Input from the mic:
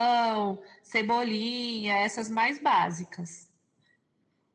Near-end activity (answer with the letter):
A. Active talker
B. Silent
B